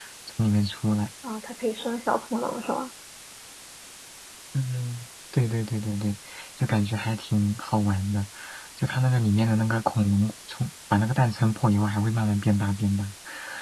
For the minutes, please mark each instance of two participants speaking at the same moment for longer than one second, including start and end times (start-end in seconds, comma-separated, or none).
none